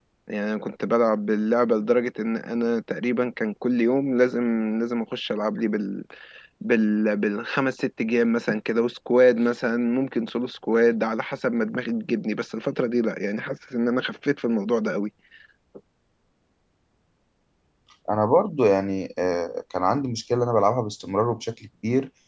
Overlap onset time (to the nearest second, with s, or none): none